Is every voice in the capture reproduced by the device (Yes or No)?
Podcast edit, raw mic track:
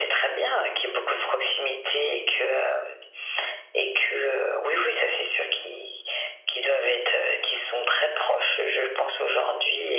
Yes